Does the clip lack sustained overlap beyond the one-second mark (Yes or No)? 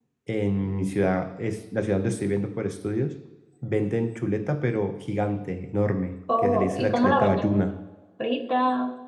No